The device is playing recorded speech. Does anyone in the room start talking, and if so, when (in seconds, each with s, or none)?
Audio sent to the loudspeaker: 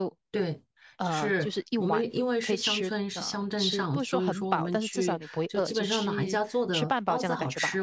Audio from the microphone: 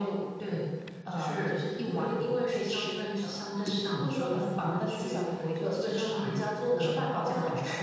none